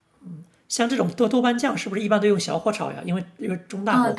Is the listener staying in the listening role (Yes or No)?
No